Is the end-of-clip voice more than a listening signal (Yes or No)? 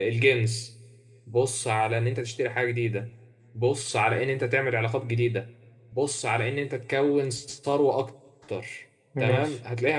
No